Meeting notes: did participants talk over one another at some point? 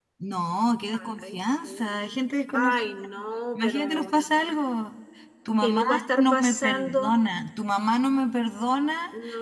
Yes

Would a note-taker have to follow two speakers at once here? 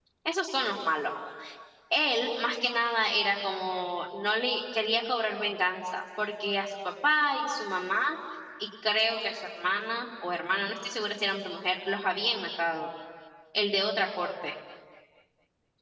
No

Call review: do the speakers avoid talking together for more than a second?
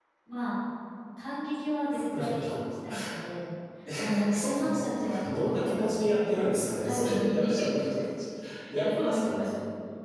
No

